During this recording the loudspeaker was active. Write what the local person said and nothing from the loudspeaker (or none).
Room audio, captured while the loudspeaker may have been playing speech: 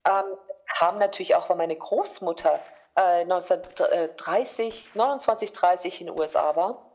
none